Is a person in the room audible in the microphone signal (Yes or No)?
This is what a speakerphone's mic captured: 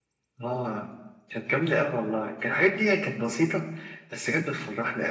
No